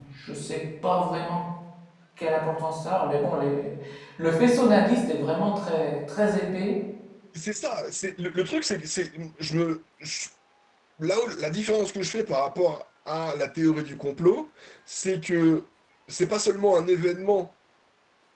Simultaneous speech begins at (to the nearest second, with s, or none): none